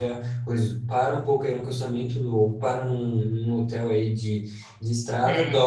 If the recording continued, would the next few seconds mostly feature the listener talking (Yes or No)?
No